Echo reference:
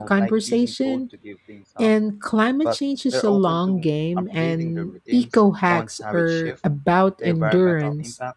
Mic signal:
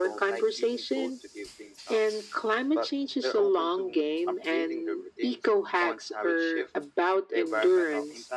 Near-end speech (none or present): none